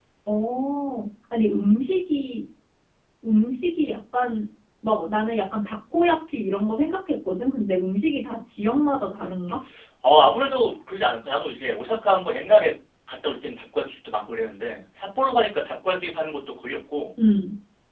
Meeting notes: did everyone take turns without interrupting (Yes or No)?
Yes